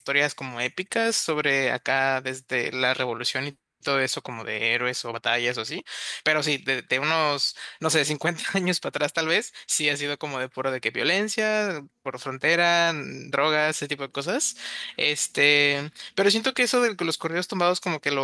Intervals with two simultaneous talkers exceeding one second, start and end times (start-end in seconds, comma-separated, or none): none